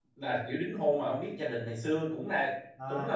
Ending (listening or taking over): taking over